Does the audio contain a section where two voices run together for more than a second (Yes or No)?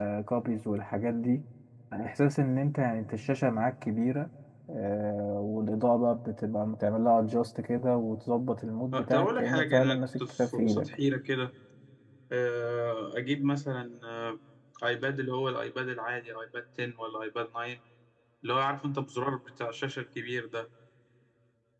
Yes